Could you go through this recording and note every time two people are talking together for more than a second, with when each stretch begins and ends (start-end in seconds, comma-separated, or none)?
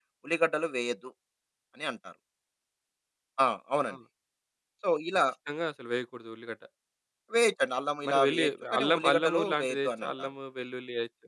8.1-10.3